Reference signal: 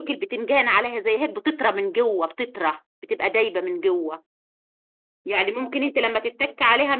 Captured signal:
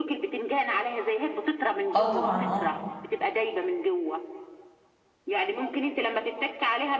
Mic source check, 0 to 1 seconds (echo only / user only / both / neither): echo only